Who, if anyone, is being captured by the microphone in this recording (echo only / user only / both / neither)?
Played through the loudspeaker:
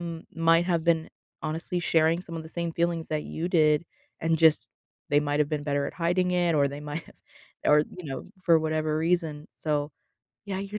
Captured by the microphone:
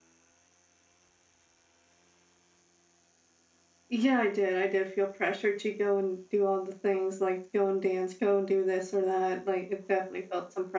user only